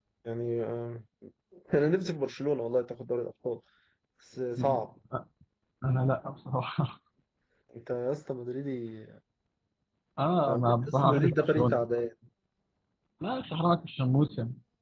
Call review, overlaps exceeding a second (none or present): present